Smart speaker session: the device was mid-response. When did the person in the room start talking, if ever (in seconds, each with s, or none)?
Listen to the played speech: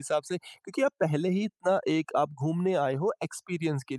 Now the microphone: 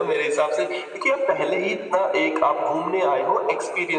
none